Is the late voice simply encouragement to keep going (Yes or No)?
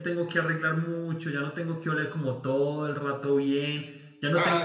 Yes